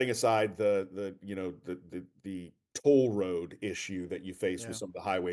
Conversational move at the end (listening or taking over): listening